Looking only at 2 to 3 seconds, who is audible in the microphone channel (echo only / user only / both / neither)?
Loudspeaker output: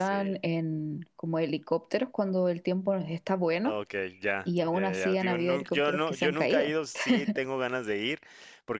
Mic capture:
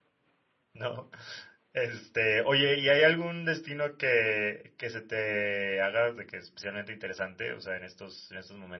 user only